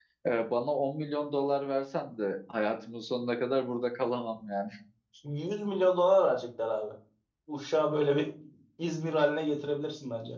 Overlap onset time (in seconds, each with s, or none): none